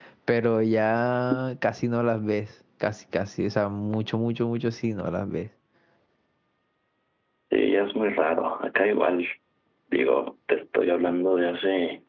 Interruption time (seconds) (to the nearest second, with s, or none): none